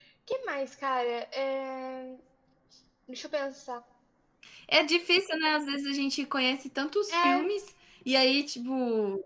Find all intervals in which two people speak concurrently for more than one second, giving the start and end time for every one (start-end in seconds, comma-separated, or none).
none